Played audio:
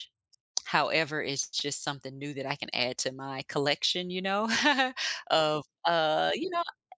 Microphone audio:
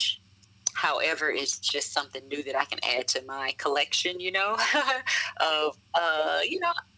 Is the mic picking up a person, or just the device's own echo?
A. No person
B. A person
A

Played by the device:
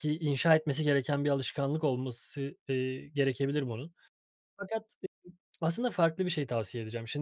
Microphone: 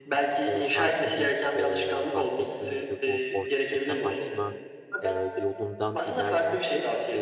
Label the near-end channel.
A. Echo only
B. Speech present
B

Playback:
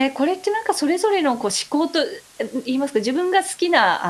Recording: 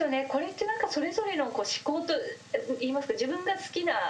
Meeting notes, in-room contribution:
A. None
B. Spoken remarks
A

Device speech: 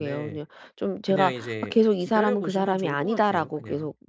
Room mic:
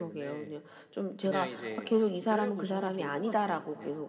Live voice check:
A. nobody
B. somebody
A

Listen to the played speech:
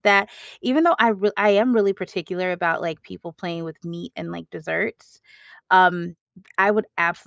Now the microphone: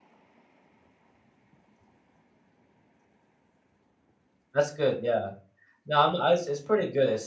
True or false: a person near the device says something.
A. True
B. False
A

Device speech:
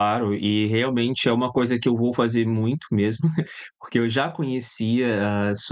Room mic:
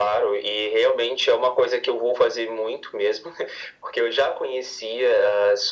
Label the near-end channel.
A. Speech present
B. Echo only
B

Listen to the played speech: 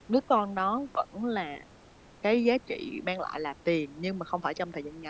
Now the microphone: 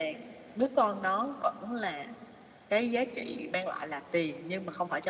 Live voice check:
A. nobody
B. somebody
A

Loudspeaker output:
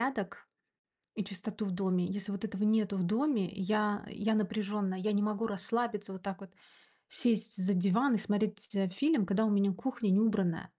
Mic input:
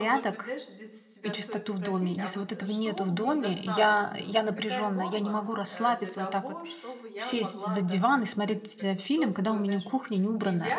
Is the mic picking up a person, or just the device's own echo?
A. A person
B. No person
A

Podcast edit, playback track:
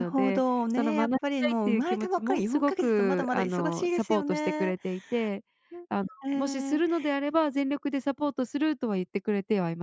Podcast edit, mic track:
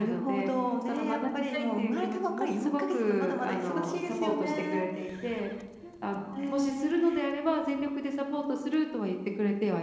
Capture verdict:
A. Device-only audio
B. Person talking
A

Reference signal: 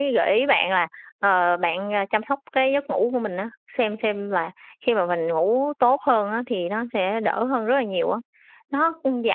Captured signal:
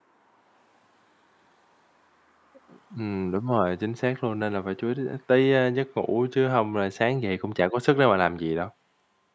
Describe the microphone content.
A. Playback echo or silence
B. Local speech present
B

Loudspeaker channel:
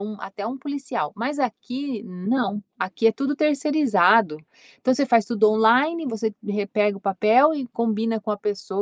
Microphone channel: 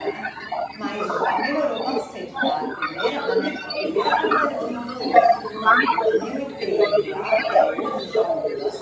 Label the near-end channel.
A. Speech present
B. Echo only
A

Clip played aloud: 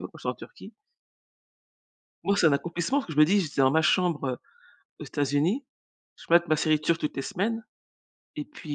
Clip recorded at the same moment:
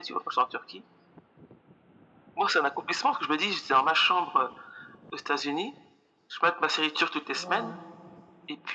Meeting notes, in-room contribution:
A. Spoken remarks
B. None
A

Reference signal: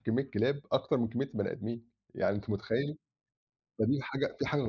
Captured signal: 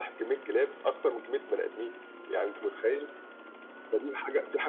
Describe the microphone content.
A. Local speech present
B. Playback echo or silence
B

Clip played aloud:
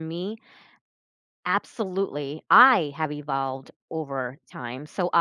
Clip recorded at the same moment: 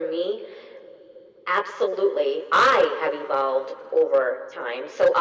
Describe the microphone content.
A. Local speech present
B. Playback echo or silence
B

